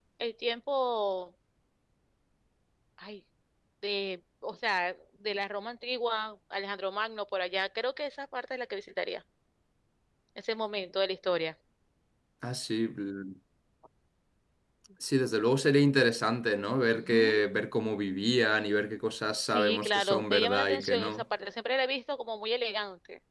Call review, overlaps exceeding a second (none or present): present